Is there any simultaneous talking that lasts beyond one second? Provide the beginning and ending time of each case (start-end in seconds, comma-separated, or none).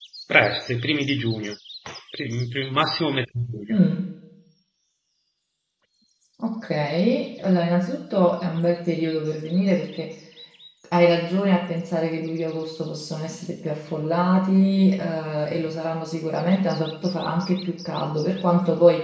none